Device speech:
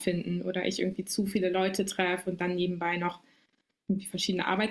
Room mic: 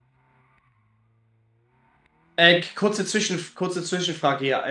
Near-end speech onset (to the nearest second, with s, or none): 2 s